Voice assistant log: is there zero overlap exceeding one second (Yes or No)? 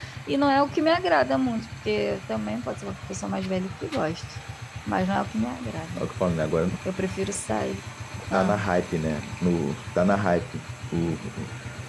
Yes